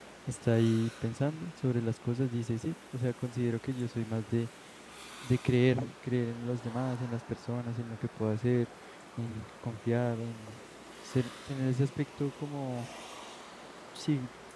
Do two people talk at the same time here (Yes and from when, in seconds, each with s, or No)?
No